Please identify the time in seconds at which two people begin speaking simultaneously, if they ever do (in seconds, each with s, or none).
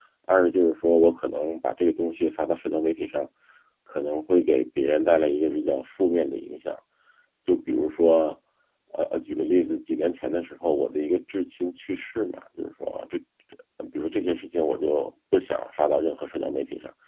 none